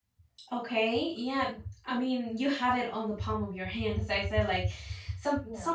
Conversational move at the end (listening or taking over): listening